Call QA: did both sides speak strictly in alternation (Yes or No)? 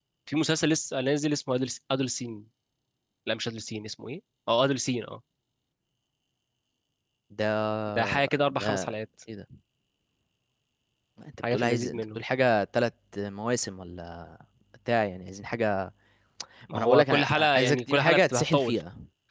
No